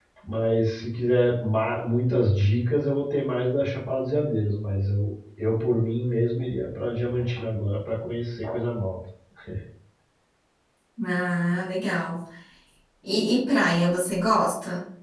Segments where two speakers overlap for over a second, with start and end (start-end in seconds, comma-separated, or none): none